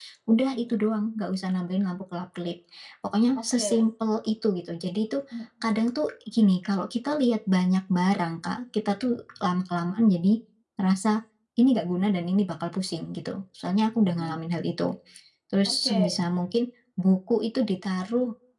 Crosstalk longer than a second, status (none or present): none